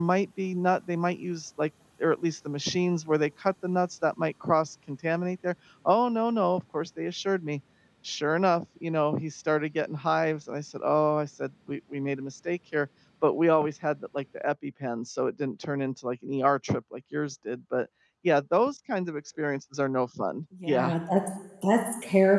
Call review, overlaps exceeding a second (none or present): none